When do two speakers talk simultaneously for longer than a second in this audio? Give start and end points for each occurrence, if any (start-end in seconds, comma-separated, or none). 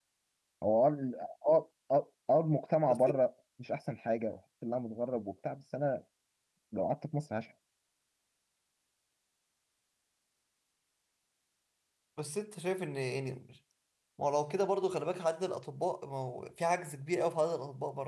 none